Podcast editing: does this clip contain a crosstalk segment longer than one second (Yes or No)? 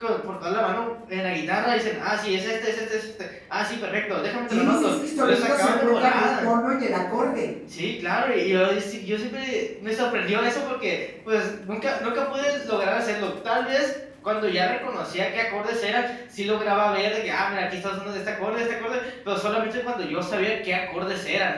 Yes